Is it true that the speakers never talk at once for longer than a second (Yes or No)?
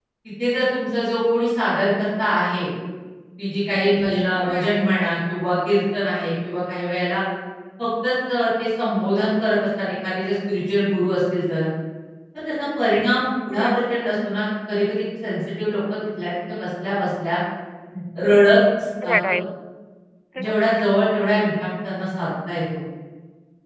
Yes